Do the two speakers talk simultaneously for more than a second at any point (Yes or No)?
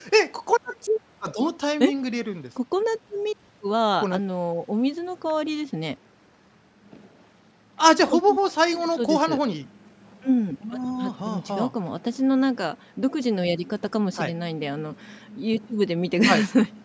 Yes